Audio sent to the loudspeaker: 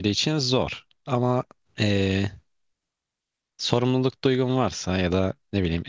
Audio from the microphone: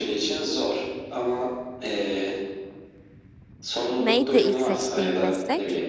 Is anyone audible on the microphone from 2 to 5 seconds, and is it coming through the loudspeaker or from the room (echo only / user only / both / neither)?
both